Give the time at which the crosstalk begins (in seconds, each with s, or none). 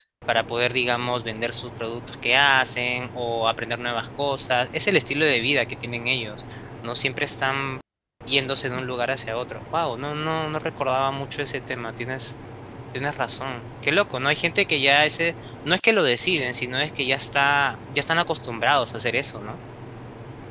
none